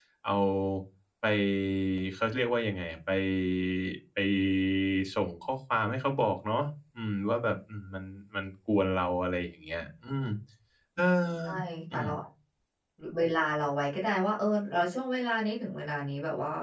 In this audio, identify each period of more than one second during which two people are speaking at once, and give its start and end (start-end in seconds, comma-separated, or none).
none